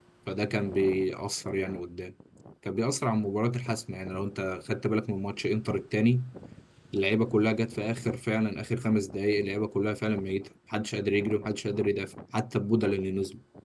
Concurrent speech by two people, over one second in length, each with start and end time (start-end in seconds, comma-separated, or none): none